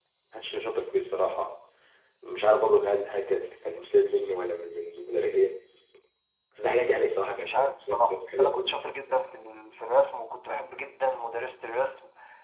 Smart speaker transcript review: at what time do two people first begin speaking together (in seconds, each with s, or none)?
7.4 s